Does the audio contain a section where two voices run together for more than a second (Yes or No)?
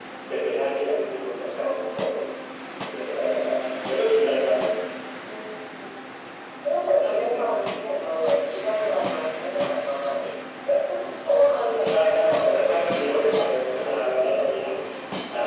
Yes